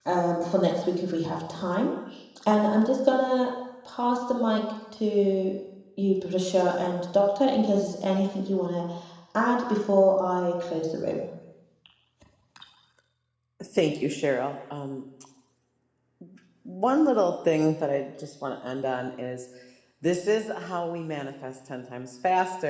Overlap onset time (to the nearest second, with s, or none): none